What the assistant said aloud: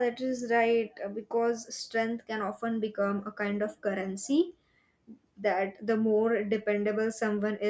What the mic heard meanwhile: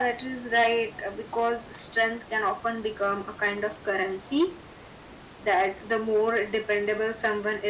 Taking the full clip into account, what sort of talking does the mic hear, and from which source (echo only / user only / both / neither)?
echo only